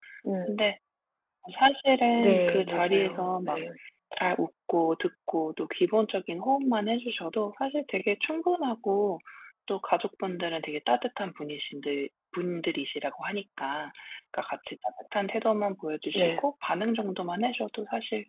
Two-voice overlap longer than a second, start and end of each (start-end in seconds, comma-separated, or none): 2.2-3.5